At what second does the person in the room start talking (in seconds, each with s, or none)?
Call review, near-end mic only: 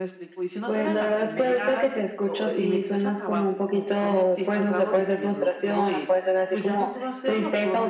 none